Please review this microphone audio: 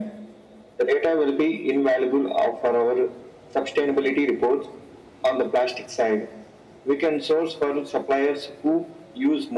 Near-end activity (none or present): none